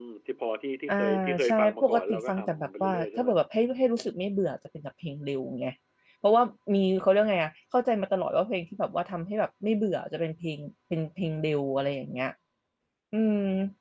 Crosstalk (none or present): present